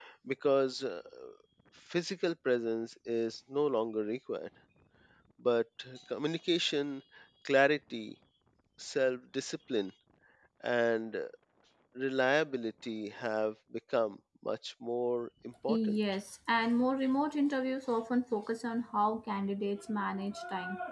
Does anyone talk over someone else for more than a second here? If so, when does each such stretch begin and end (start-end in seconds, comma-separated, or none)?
none